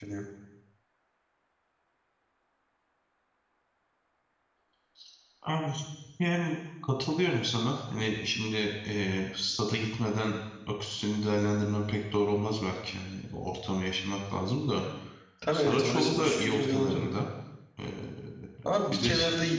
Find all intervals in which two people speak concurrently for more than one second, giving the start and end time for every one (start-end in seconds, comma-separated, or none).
15.5-17.1